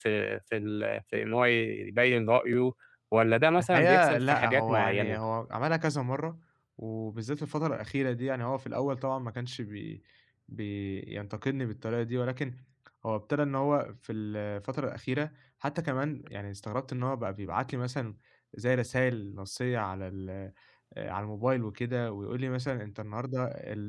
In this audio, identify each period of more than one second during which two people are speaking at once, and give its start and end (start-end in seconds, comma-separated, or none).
3.6-5.2